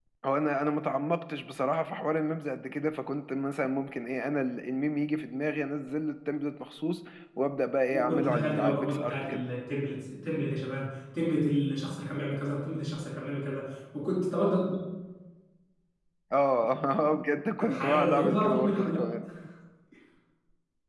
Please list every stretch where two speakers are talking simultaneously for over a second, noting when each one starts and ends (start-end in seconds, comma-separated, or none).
7.9-9.4, 17.6-19.1